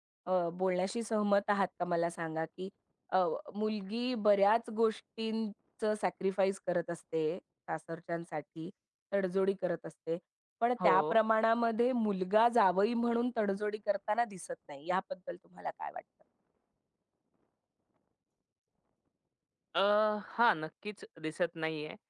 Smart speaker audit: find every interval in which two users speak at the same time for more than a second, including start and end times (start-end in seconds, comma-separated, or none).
none